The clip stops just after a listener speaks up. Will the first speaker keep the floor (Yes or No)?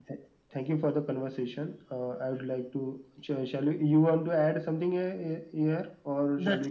No